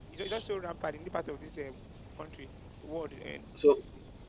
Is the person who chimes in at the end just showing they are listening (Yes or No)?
No